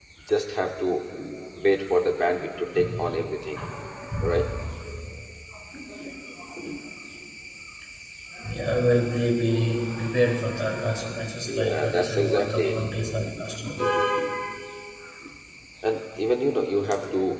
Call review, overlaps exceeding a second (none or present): present